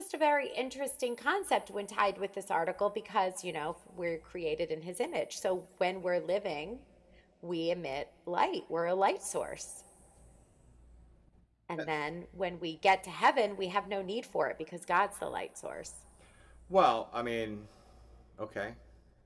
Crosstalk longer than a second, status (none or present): none